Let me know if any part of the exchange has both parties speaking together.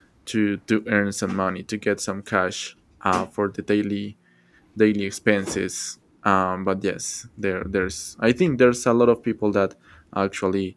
No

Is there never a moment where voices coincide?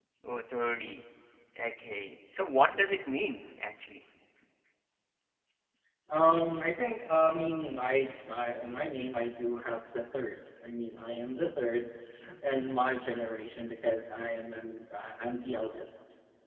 Yes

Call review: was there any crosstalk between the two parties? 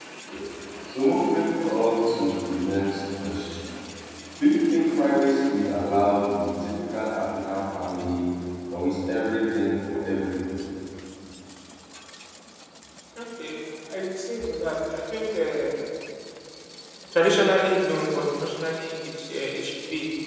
No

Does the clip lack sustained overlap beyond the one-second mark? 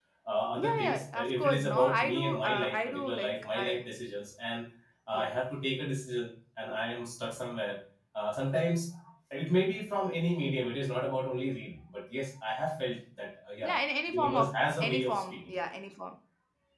No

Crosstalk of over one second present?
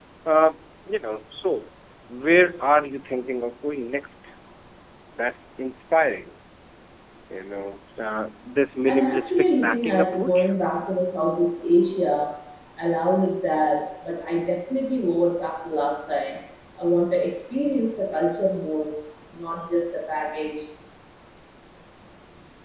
Yes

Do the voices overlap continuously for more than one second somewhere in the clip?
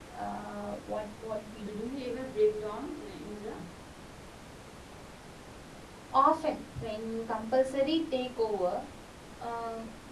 No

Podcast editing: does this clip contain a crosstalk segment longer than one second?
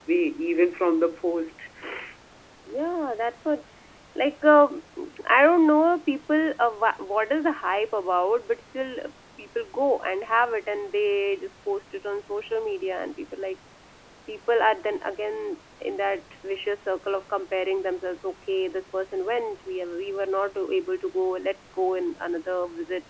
No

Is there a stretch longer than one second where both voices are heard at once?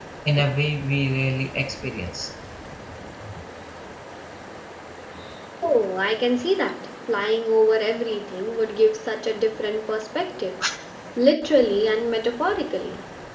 No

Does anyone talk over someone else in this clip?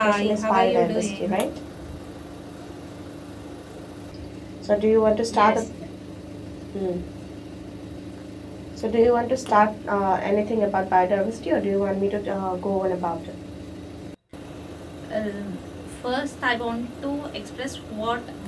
Yes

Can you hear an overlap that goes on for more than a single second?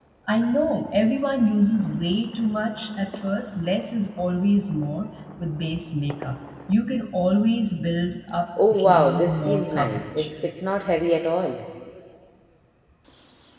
Yes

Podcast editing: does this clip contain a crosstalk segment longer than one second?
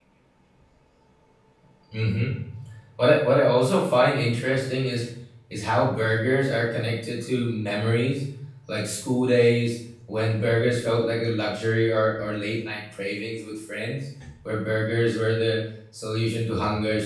No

